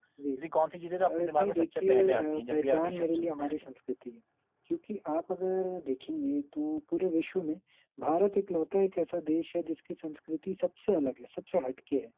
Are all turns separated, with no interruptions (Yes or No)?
No